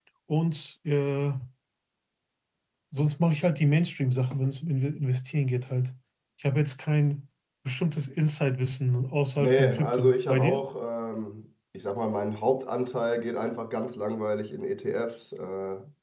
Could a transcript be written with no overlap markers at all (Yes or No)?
No